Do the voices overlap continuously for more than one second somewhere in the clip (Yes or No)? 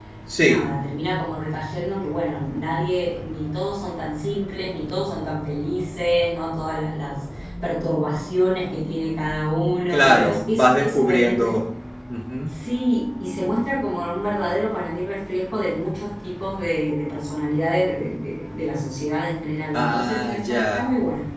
Yes